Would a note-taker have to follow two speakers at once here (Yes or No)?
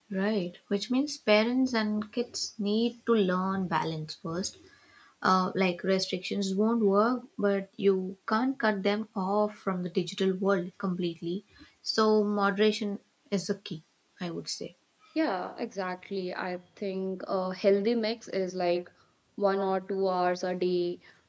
No